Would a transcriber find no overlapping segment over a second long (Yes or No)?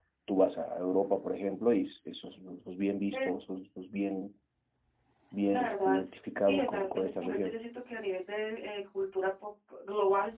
No